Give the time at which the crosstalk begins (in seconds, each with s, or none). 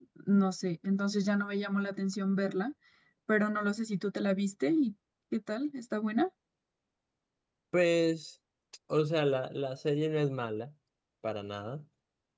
none